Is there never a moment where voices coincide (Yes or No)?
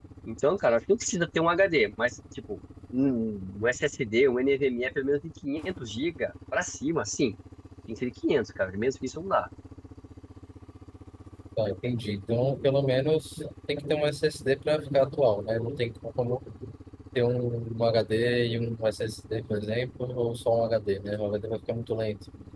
Yes